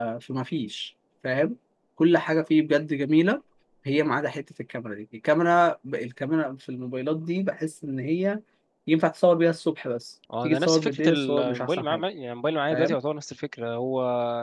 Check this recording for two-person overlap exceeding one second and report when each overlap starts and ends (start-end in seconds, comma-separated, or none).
10.4-12.1